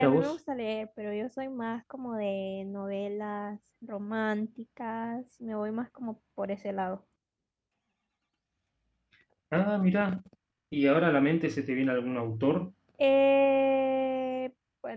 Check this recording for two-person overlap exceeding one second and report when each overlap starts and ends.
none

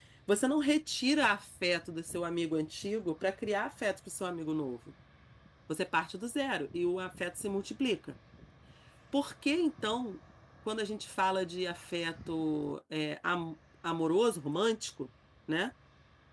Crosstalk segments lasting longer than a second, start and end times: none

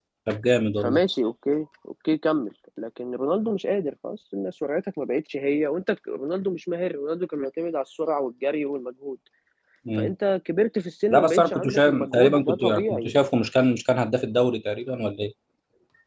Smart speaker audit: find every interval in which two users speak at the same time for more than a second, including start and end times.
11.1-13.1

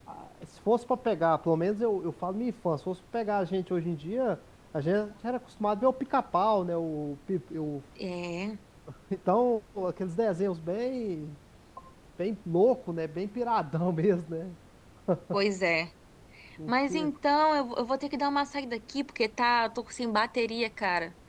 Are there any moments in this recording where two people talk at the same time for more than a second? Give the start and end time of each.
none

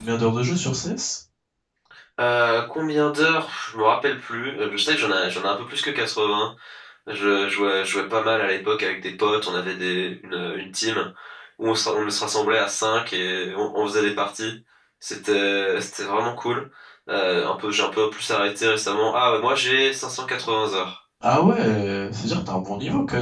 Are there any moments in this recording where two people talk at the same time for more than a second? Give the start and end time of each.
none

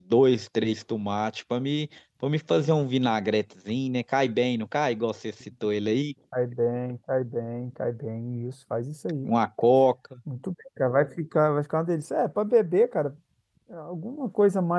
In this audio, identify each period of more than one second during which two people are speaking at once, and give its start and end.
none

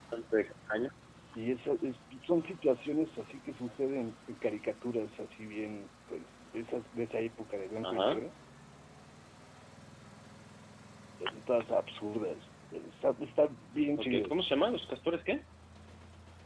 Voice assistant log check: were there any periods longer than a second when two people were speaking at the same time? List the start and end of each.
none

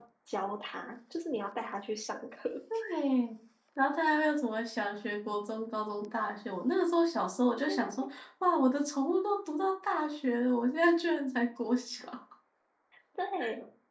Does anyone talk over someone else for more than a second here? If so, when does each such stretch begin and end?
none

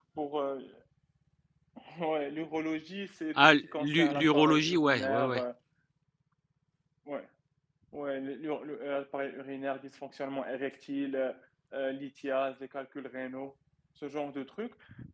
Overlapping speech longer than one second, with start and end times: 3.4-5.4

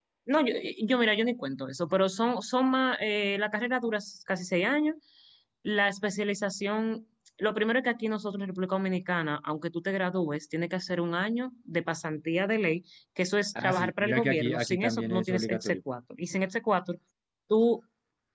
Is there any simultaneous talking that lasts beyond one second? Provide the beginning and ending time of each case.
13.6-15.8

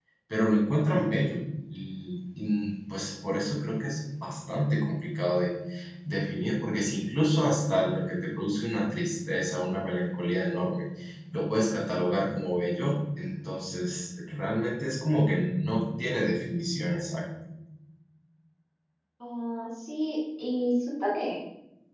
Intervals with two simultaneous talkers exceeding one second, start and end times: none

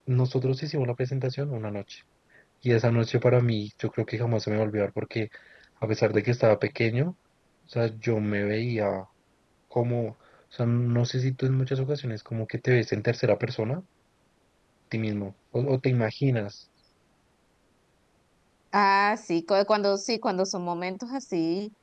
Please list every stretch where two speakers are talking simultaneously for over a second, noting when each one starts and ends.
none

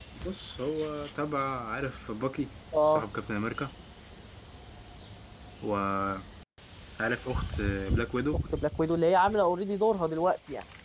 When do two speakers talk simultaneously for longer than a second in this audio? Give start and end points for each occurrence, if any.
none

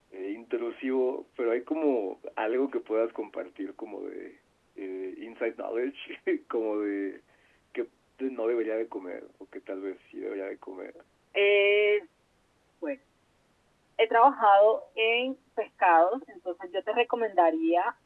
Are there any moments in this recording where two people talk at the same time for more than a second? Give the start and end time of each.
none

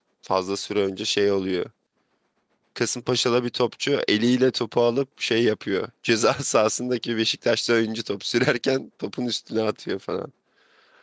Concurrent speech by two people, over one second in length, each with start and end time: none

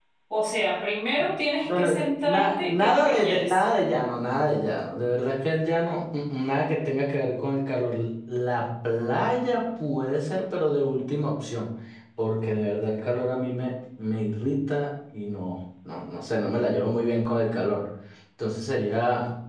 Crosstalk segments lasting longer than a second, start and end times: 1.6-3.6

